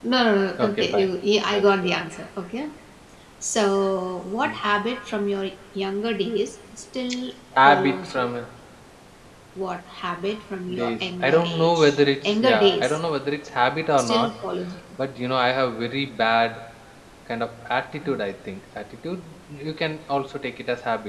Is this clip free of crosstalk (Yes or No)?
No